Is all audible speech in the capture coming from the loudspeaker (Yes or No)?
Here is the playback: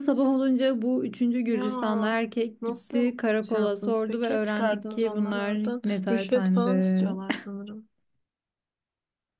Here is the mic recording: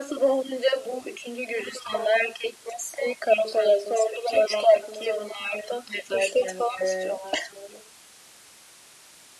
Yes